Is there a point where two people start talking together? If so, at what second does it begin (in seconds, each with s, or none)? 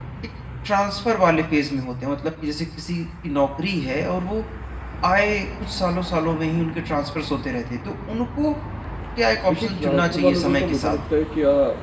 9.5 s